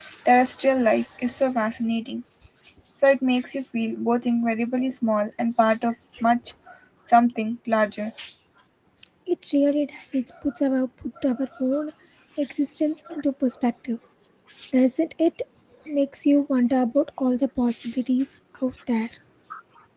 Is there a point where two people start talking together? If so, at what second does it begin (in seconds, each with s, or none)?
none